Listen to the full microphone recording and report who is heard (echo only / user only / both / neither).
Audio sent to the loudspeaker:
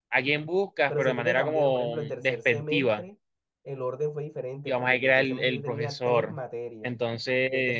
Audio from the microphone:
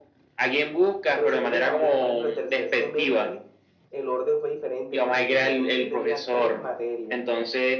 echo only